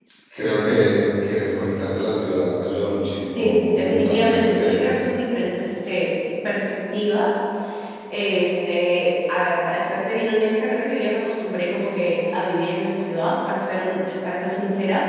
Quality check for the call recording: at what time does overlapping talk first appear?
3.4 s

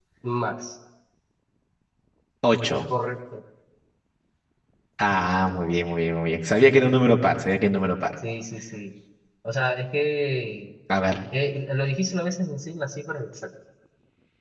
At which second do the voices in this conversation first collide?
none

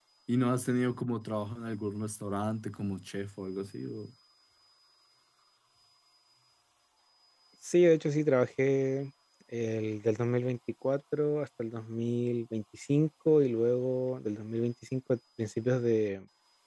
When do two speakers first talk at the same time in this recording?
none

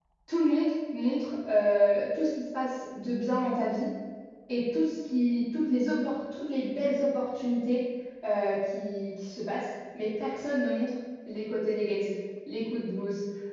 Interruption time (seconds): none

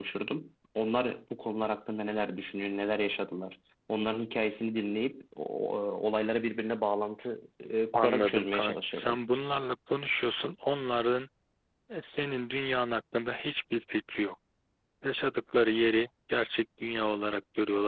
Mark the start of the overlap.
7.9 s

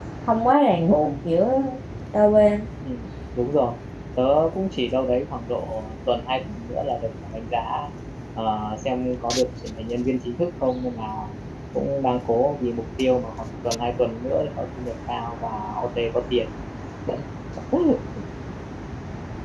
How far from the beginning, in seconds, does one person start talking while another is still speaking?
none

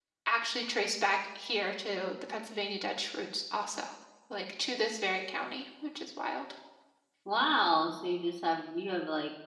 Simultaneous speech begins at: none

